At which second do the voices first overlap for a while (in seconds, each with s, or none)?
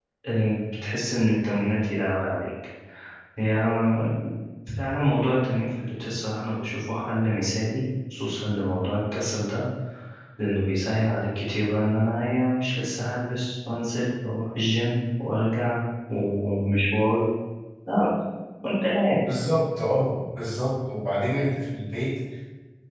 none